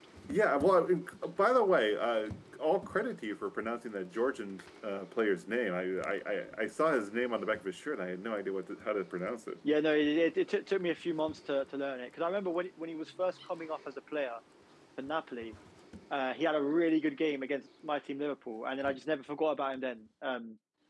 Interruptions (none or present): none